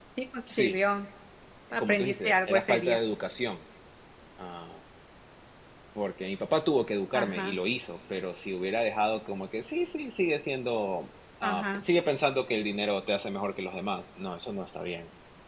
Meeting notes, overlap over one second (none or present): present